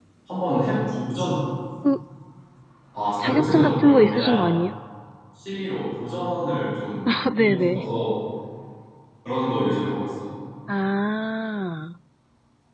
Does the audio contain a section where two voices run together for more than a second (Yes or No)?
Yes